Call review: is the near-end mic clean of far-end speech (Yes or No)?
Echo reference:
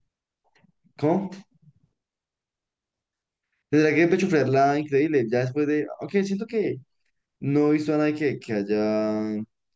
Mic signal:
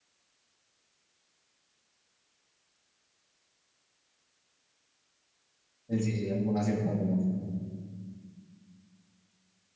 Yes